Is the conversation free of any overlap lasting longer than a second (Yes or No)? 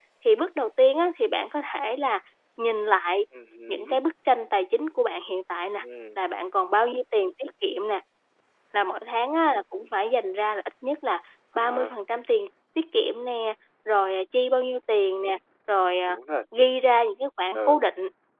Yes